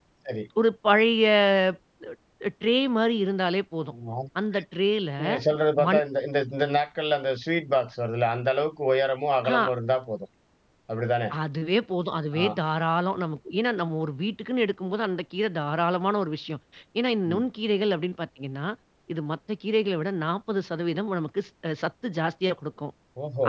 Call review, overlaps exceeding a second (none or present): none